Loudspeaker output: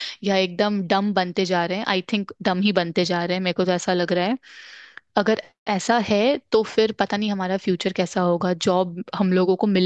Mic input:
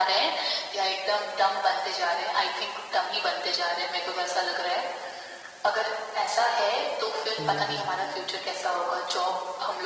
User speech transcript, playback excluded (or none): हम्म हम्म